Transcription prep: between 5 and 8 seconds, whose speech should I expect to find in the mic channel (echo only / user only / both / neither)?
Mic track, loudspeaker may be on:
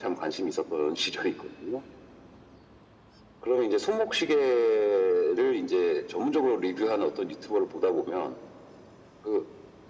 echo only